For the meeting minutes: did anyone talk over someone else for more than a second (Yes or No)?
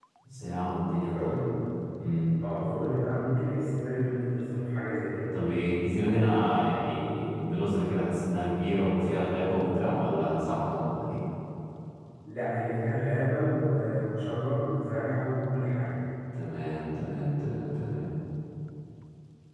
No